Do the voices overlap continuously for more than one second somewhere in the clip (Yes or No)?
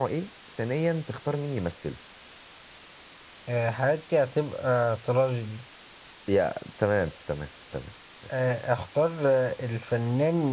No